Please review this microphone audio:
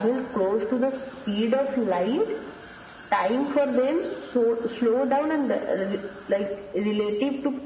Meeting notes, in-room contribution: none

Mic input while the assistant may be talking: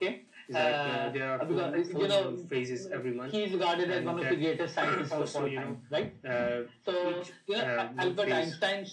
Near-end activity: none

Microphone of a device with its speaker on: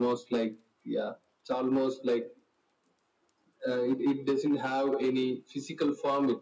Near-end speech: none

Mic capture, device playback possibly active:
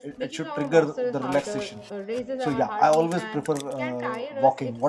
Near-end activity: present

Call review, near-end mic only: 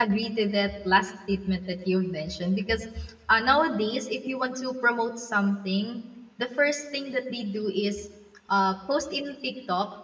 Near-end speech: present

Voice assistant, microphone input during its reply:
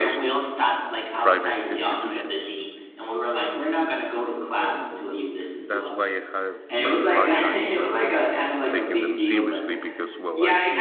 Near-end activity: present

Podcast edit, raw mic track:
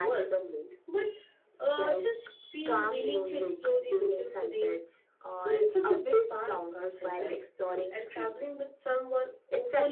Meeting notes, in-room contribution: present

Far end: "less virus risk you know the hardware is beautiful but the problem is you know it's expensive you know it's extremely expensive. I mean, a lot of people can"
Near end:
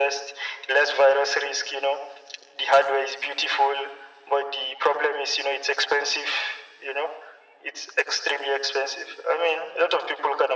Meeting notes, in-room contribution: none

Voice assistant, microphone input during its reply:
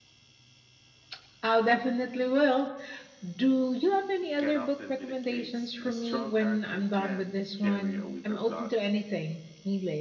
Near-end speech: present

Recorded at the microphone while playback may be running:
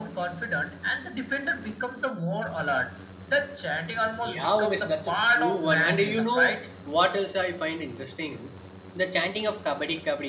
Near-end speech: present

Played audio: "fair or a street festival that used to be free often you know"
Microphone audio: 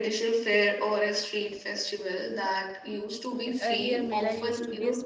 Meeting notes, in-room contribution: present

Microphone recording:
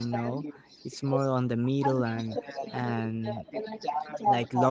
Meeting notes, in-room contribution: present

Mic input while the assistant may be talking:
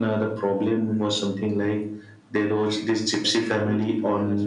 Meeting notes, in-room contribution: present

